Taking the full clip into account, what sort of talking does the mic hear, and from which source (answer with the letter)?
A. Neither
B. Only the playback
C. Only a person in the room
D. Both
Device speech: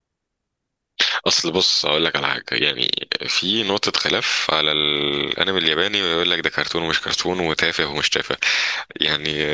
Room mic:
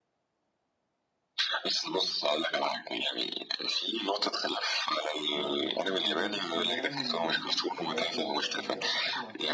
D